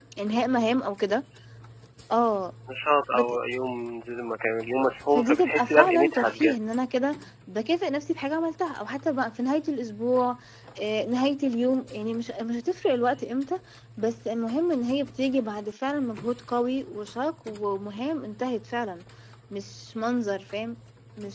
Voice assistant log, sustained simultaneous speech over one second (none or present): present